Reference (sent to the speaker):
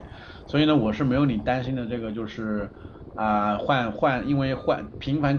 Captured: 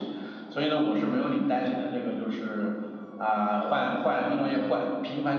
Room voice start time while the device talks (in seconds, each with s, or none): 4.2 s